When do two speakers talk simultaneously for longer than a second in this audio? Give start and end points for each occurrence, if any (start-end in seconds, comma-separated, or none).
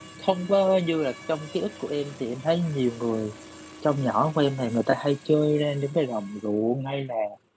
none